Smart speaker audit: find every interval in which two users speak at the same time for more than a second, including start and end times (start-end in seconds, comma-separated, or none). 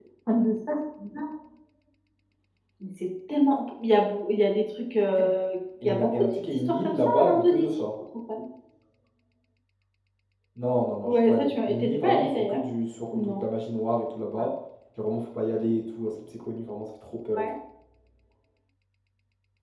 5.8-7.8, 11.0-12.6